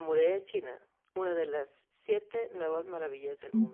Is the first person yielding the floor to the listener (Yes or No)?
Yes